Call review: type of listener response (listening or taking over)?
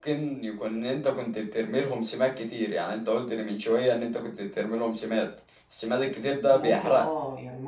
taking over